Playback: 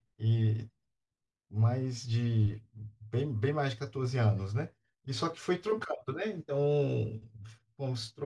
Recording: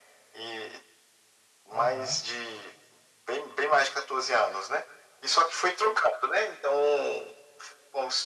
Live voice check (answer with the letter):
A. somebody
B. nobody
A